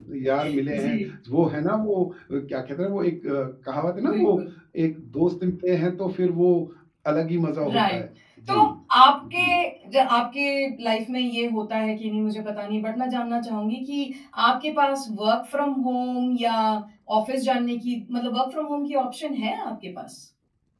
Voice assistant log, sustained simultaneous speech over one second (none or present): none